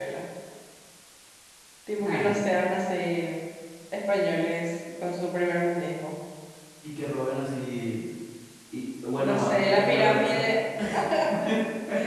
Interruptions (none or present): present